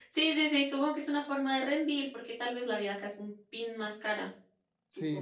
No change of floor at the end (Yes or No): No